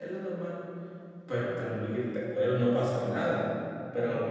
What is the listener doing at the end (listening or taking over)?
listening